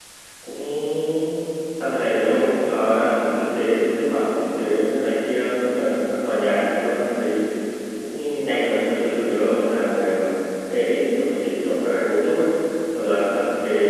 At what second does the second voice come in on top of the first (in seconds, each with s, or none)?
none